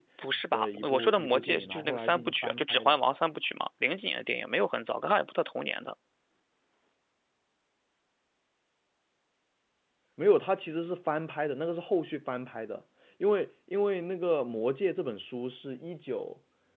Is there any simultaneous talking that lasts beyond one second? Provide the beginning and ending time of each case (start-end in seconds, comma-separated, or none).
0.5-3.0